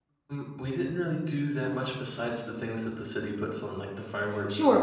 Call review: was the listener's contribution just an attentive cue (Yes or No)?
No